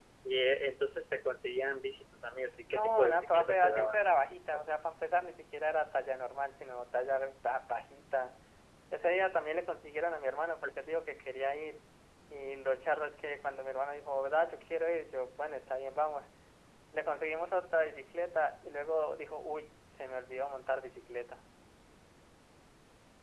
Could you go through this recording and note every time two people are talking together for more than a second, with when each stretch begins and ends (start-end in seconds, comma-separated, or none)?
2.7-4.0